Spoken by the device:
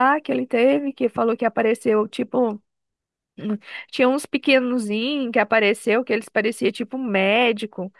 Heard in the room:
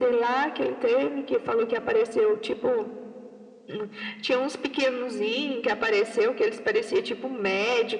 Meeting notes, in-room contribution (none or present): none